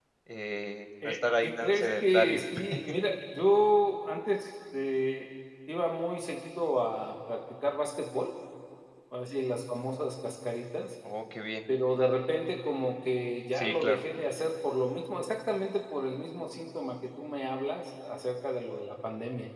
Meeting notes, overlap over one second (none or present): present